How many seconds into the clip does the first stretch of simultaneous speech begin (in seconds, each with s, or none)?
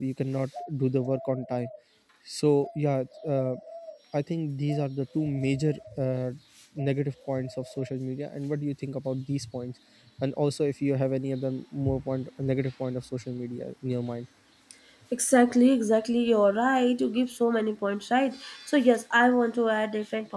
none